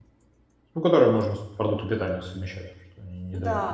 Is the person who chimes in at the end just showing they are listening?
No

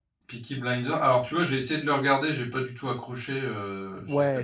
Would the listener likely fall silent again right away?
No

